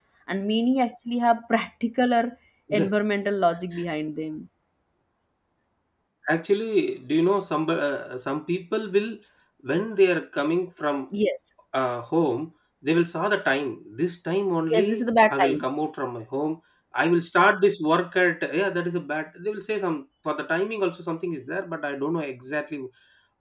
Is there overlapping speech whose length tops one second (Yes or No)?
No